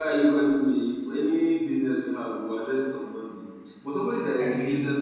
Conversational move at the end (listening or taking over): listening